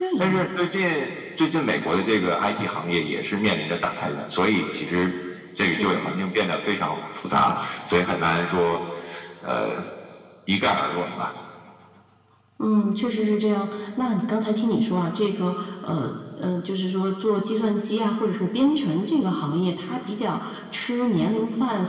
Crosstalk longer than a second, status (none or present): none